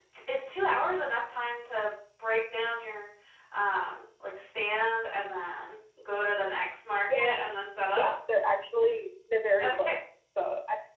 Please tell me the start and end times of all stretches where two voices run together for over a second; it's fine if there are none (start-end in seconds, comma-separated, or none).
none